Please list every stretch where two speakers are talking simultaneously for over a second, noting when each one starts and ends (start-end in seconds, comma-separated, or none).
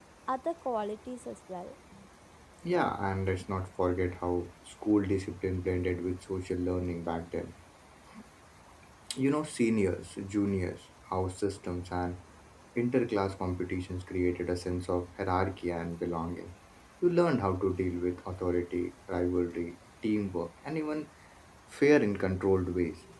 none